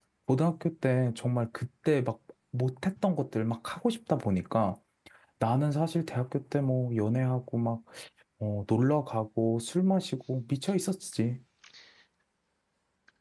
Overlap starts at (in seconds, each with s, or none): none